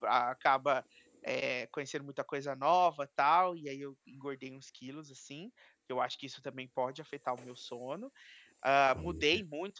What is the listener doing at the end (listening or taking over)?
listening